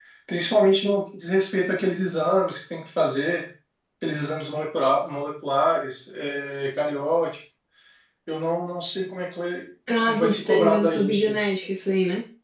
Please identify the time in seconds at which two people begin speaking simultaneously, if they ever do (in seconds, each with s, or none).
10.1 s